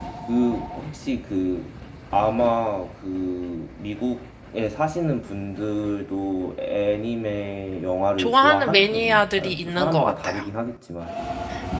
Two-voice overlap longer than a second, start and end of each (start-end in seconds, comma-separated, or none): 8.2-10.4